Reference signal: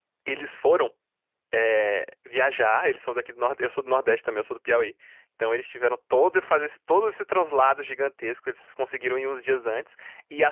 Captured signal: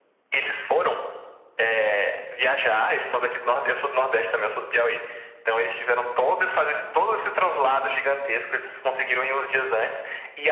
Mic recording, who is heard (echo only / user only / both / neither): echo only